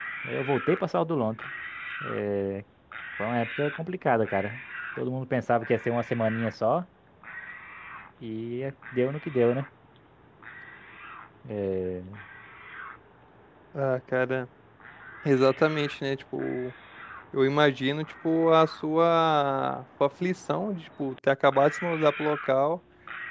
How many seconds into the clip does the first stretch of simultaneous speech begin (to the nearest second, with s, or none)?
none